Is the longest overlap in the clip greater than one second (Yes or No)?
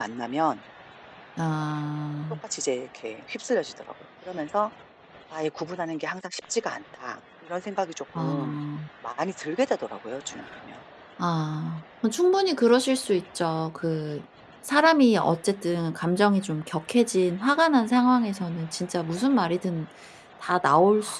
No